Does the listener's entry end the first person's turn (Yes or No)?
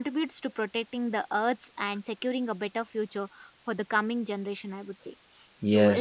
Yes